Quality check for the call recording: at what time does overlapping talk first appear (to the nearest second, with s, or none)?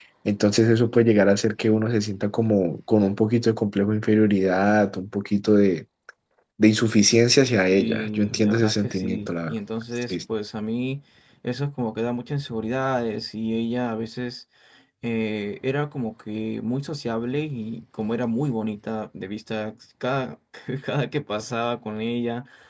8 s